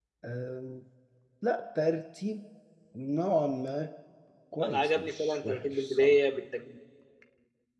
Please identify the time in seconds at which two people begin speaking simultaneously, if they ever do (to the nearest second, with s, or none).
5 s